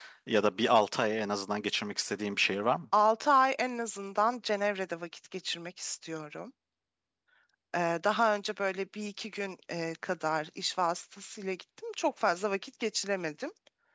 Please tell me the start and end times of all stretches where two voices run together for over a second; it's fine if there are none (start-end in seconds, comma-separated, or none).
none